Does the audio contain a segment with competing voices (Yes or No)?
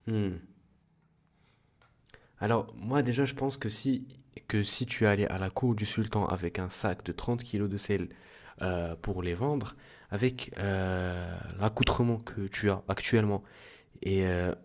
No